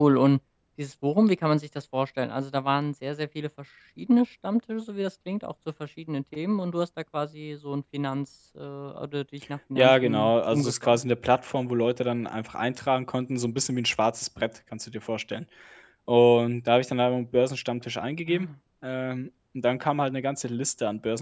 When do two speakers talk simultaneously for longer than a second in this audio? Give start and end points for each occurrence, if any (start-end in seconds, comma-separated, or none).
9.8-11.0